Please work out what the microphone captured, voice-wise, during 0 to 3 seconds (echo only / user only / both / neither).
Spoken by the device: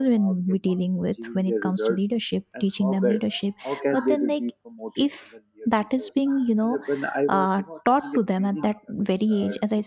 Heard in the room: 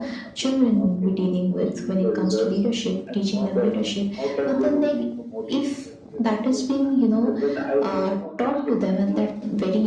echo only